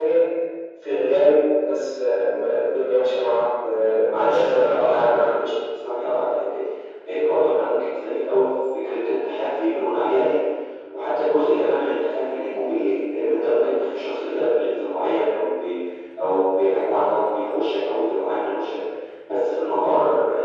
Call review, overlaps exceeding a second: present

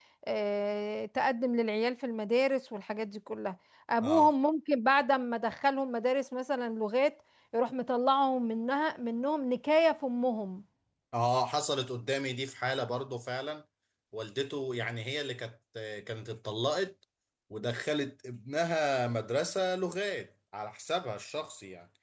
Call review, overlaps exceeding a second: none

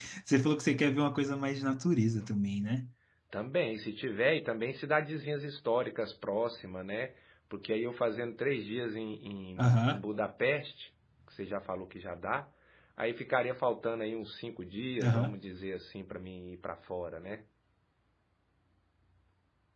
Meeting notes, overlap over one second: none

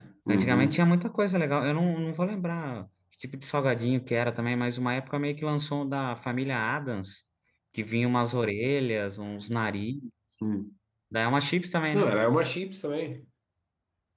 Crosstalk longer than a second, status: none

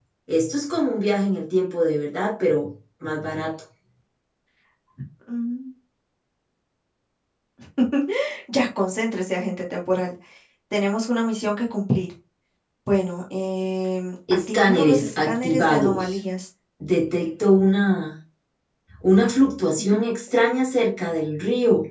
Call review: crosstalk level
present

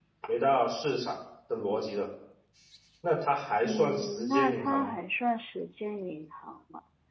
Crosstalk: present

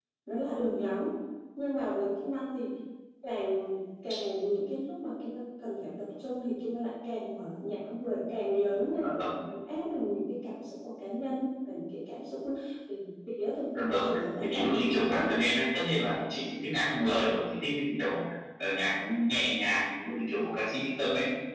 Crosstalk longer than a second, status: present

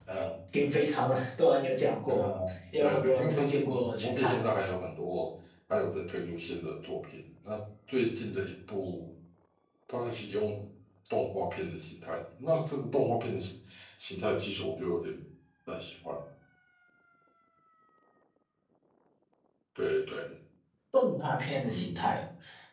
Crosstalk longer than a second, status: present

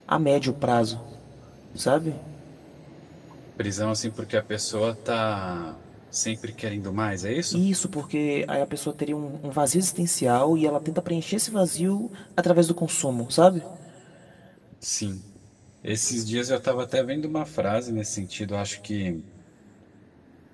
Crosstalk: none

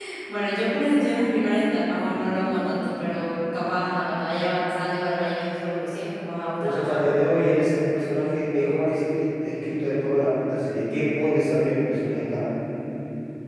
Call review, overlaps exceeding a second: none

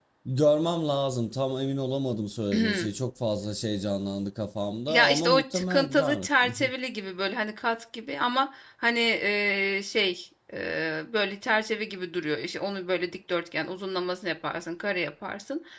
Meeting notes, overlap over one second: present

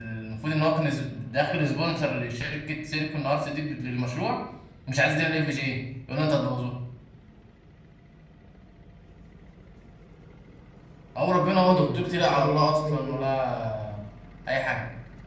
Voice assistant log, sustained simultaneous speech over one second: present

